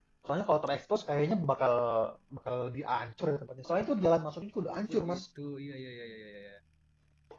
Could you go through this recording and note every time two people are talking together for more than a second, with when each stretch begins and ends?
none

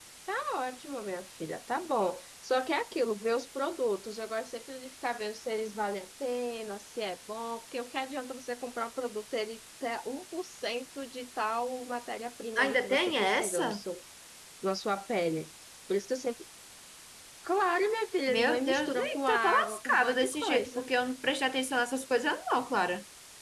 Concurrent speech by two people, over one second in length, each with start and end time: 12.6-13.8, 18.3-20.9

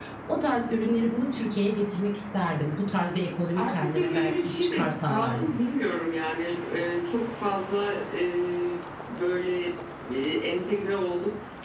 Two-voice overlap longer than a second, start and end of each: 3.5-5.5

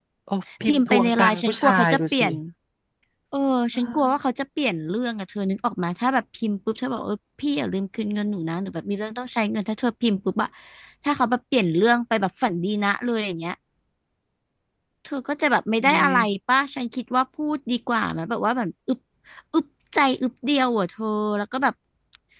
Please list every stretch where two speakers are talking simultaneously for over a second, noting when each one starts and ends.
0.7-2.3

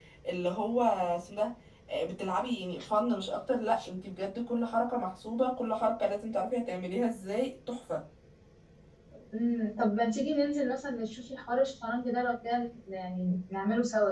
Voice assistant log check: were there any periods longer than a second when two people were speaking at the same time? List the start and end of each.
none

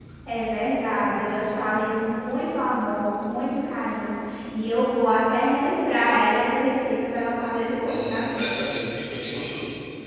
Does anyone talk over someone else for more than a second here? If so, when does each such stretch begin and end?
none

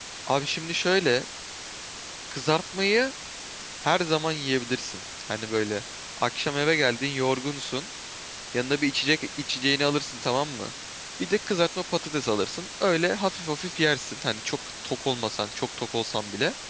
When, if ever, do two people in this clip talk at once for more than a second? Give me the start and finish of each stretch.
none

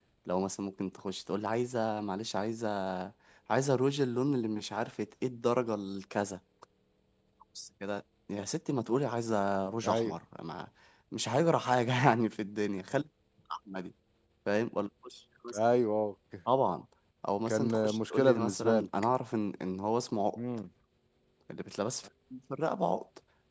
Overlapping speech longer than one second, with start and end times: 17.5-18.9

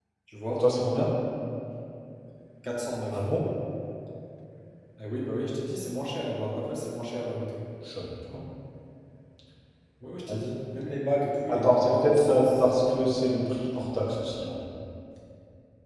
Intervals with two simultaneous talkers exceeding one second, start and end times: 11.5-13.1

